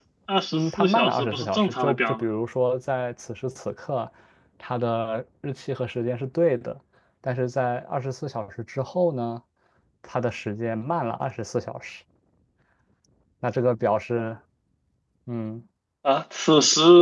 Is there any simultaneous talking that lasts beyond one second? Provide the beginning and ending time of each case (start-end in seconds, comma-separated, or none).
0.5-2.2